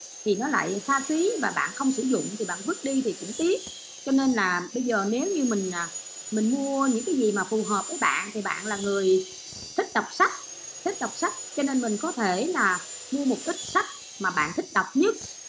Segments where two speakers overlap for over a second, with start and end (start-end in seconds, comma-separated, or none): none